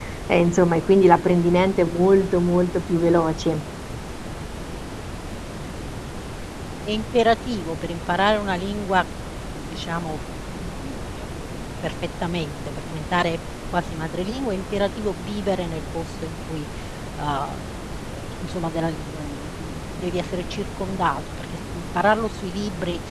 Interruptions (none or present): none